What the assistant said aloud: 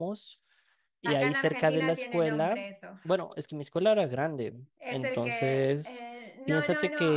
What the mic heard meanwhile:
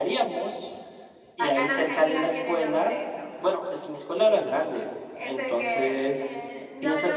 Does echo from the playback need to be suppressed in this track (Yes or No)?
Yes